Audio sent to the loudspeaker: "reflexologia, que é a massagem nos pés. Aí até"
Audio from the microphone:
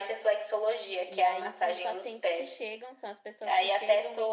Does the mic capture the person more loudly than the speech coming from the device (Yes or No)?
No